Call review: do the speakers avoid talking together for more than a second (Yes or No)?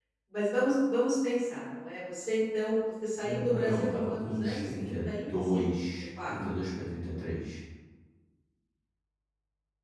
No